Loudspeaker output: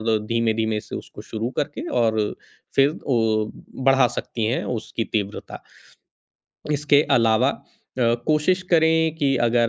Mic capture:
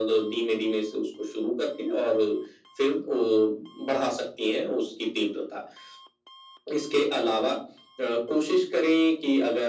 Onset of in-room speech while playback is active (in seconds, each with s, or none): none